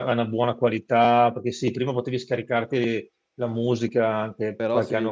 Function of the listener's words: listening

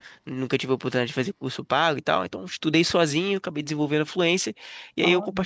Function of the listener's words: listening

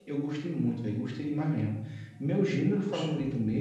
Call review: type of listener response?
listening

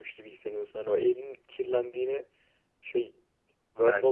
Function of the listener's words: taking over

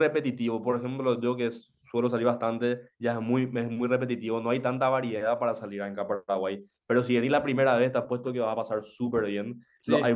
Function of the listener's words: listening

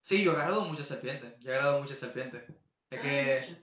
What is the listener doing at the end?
listening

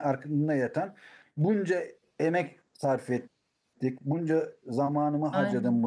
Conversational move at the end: listening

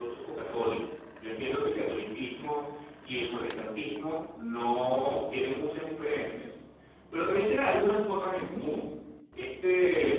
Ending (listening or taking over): listening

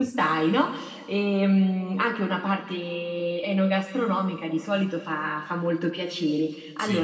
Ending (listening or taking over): listening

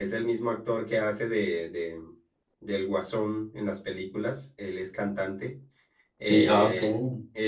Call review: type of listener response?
listening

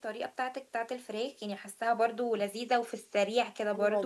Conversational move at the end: taking over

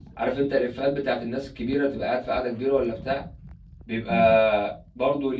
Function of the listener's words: listening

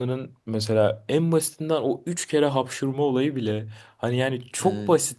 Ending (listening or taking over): listening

